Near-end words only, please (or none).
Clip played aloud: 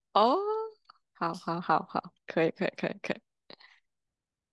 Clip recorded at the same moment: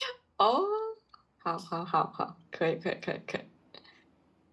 none